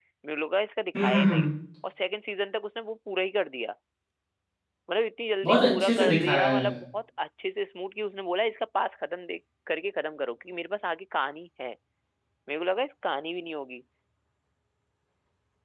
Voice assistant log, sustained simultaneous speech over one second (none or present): present